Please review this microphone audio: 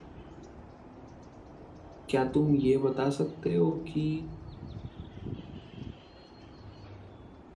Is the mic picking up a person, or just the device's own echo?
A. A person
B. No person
A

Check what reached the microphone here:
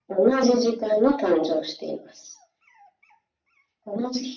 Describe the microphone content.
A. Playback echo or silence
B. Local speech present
A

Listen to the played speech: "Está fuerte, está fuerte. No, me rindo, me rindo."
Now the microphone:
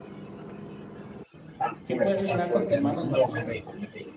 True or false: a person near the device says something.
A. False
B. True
B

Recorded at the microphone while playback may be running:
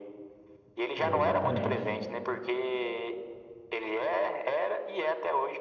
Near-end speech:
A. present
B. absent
A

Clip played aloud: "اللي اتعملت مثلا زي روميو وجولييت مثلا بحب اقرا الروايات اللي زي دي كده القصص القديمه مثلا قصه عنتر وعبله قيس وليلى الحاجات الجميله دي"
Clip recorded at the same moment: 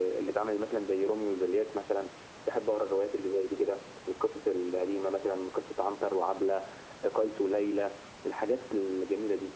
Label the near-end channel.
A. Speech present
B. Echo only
B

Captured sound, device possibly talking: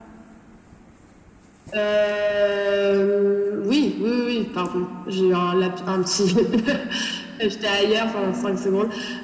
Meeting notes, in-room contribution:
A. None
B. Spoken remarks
B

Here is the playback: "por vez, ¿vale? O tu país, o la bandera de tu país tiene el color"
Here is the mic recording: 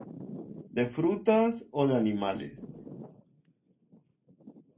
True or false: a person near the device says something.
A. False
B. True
B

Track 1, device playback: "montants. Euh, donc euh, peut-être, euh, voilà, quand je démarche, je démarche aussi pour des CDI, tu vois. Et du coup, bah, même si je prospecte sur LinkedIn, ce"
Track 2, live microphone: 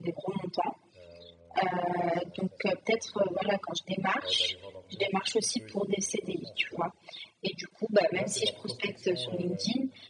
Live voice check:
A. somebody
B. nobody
A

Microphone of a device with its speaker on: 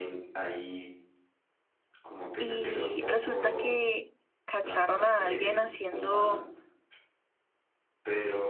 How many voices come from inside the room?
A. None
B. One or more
B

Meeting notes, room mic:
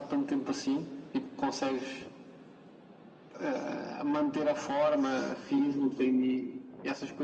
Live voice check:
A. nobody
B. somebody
A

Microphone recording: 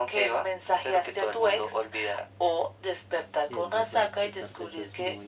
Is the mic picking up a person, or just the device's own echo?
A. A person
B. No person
A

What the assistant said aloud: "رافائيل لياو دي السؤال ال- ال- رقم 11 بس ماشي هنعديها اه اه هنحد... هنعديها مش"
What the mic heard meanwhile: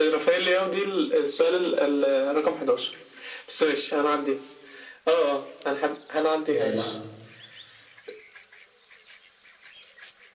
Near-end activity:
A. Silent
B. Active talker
B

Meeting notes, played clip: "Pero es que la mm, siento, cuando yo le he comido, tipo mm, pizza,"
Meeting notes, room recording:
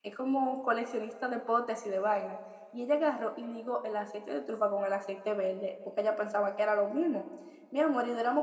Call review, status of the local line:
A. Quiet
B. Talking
B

